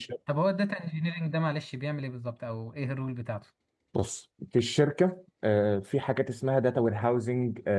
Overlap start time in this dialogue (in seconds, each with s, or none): none